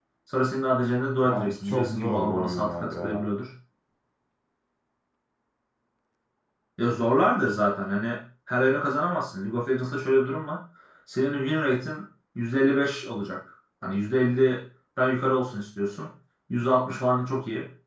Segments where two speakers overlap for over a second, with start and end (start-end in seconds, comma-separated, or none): 1.3-3.2